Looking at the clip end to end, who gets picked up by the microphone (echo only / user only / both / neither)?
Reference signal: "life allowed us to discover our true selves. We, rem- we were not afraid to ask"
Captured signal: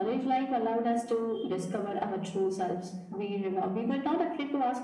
echo only